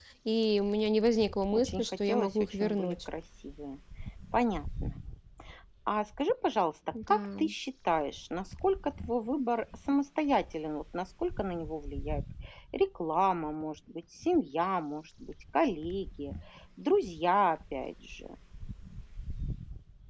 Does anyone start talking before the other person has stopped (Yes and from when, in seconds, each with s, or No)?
Yes, from 1.5 s